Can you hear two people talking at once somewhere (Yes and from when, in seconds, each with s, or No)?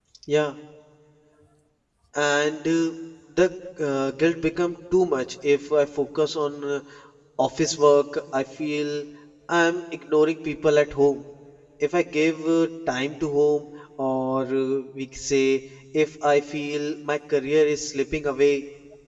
No